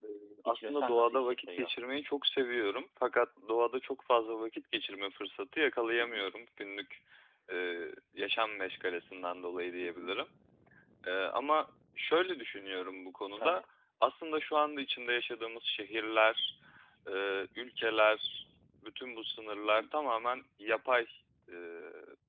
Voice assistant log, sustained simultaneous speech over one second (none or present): present